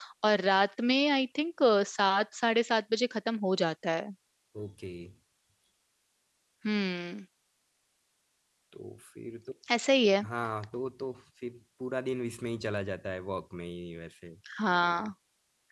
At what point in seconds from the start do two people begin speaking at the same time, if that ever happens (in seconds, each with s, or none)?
none